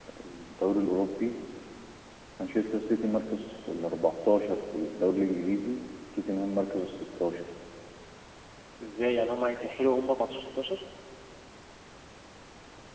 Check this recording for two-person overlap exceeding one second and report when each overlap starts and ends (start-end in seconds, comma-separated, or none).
none